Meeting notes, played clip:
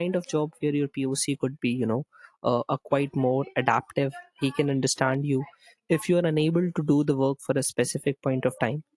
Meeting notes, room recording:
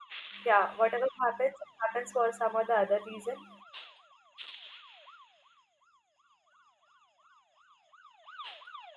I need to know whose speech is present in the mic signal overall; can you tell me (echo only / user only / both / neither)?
user only